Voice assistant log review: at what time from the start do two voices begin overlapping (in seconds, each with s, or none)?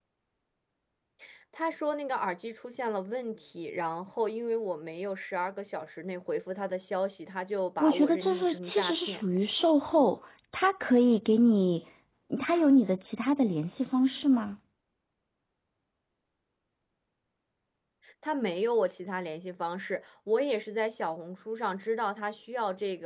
7.8 s